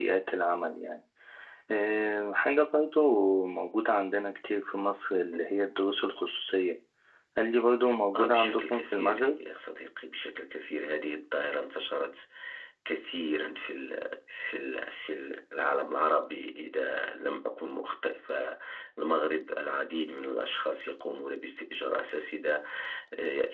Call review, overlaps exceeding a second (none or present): present